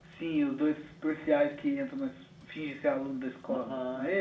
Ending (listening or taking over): taking over